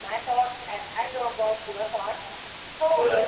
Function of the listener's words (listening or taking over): listening